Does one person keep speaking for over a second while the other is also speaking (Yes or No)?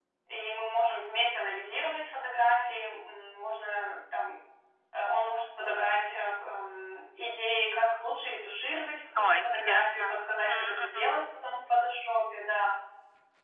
Yes